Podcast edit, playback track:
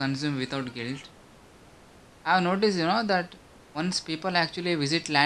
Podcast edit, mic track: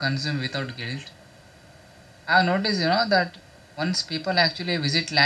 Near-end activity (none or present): none